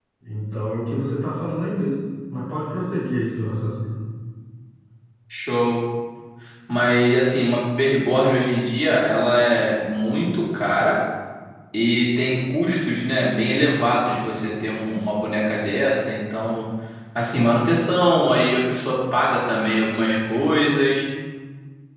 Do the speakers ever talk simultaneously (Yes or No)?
No